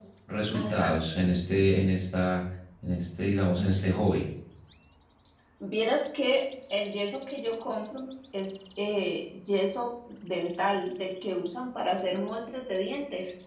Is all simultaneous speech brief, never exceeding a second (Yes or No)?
Yes